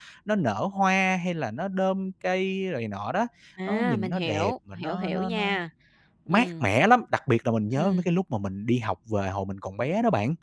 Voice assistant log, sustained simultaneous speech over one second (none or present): present